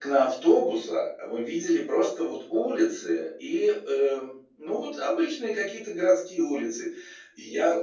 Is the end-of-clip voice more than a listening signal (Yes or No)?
No